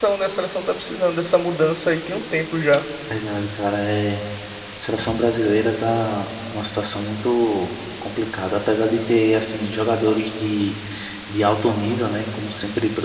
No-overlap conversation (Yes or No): Yes